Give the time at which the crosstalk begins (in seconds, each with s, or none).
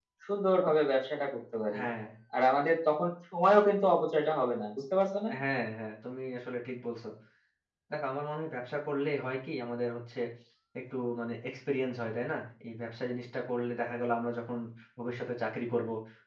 none